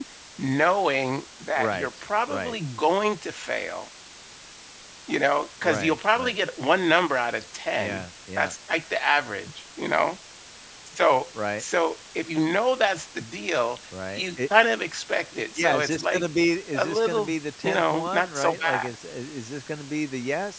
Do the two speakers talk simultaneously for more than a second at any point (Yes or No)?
Yes